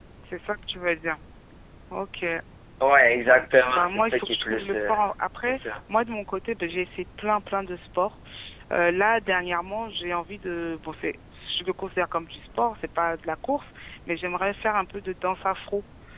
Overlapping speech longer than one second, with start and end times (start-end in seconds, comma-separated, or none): 3.2-4.9